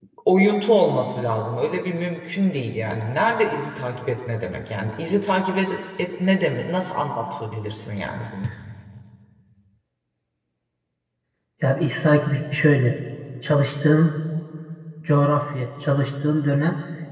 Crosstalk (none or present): none